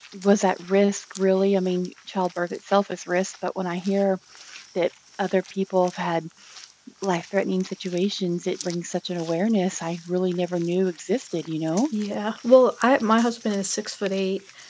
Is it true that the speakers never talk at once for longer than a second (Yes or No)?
Yes